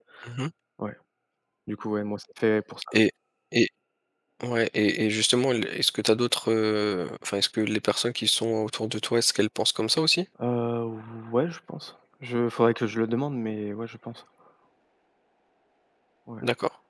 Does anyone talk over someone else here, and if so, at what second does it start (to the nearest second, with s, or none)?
none